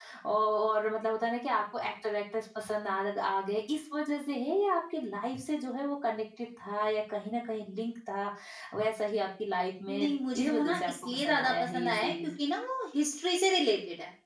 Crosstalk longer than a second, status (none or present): present